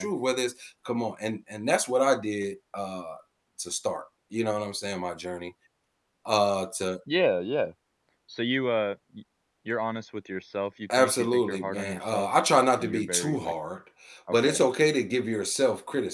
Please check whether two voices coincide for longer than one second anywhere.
Yes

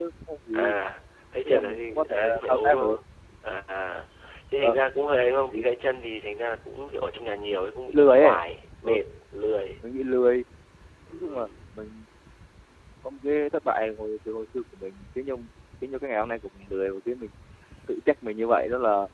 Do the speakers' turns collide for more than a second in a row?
Yes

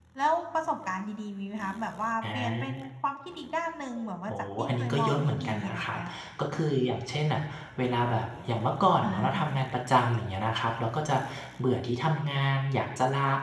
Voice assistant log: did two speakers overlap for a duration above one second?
Yes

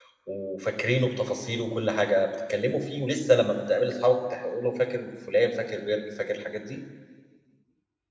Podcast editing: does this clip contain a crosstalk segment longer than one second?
No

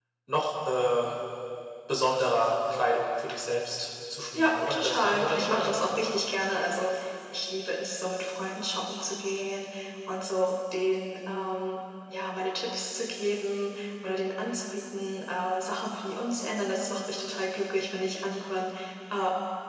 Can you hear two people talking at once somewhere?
Yes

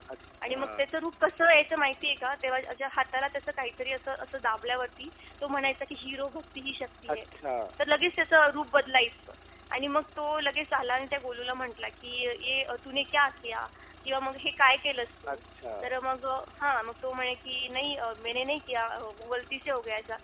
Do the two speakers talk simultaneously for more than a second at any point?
No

